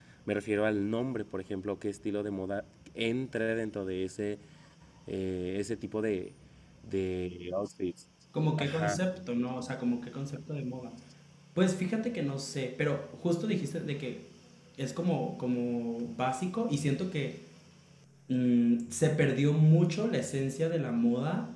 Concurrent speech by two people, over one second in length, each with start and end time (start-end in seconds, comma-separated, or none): none